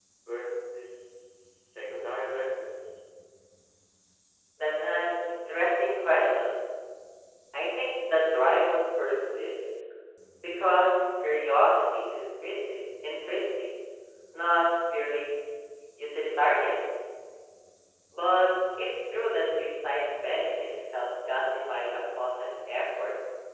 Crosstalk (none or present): none